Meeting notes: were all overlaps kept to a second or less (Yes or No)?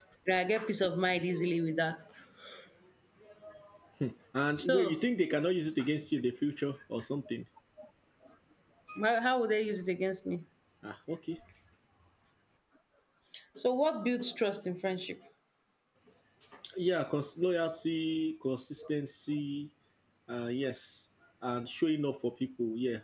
Yes